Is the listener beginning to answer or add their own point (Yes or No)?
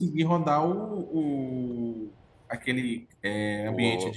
No